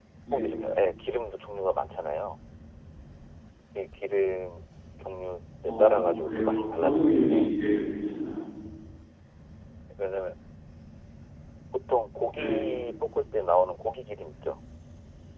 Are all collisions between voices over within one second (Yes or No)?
No